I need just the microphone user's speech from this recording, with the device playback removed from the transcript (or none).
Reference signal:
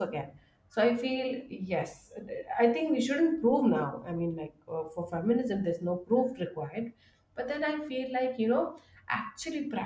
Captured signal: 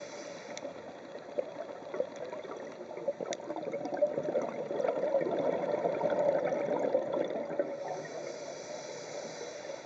none